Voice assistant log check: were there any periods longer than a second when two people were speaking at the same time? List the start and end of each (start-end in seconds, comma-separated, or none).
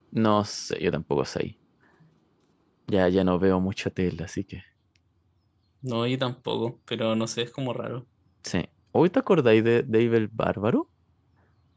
none